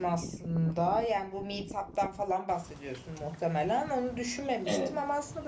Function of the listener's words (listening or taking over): listening